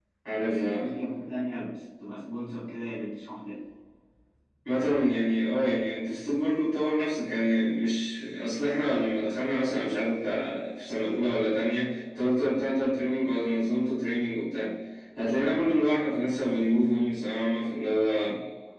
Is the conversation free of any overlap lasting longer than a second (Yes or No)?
Yes